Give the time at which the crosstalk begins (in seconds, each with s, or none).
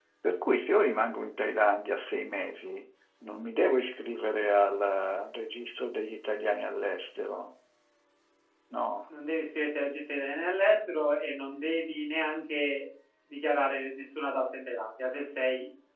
none